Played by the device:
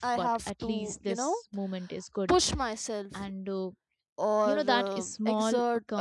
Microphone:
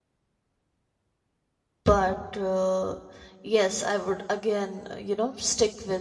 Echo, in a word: none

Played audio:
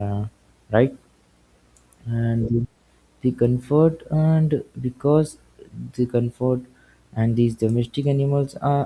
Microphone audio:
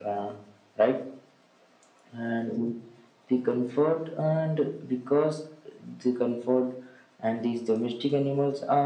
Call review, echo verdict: present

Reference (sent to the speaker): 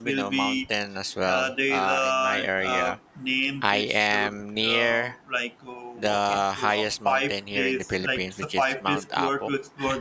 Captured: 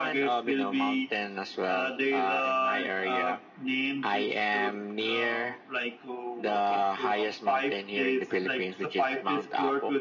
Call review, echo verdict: present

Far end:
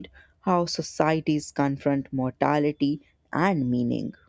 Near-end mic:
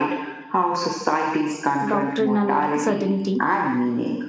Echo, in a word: present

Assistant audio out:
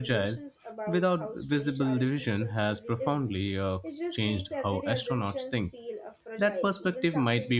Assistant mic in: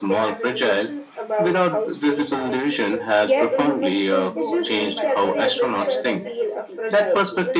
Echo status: present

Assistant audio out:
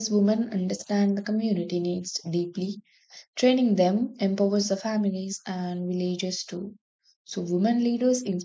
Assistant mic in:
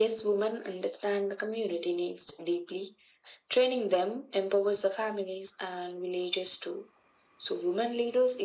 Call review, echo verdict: present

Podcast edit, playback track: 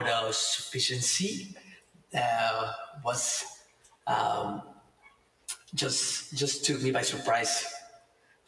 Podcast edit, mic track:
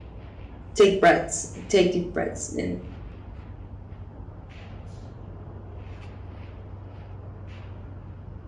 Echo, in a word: none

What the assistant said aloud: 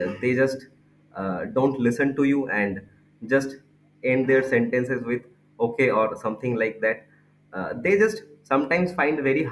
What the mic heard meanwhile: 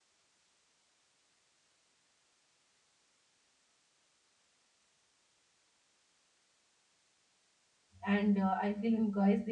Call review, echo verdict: none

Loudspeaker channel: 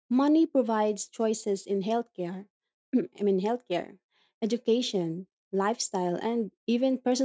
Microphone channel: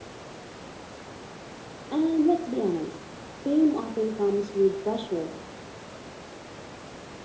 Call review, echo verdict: none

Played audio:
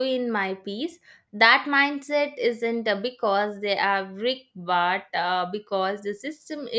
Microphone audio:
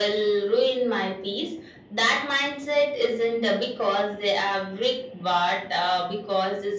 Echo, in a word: present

